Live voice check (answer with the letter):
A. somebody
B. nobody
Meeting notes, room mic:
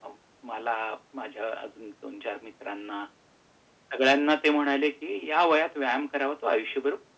B